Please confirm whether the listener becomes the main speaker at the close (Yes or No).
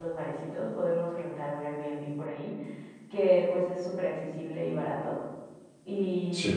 No